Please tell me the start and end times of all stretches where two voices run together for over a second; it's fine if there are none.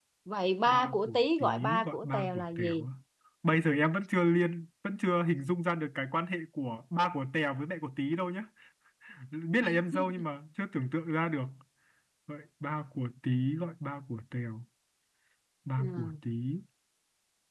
0.7-2.9

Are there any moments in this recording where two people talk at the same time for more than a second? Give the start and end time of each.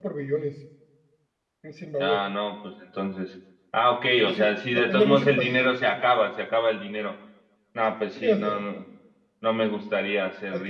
4.2-5.6

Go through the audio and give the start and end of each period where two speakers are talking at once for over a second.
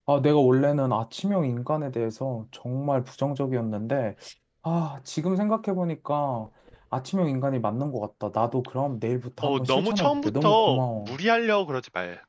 9.4-11.2

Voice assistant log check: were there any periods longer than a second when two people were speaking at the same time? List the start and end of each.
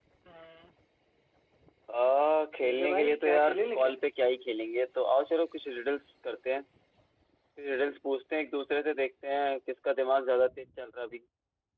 2.5-4.0

